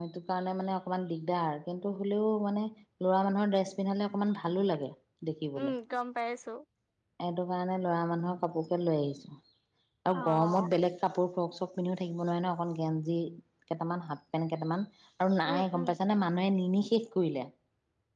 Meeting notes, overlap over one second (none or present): none